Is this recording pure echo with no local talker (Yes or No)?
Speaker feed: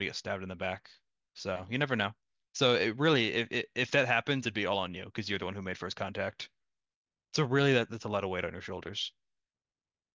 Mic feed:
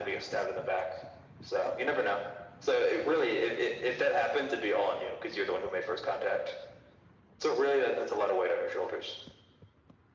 Yes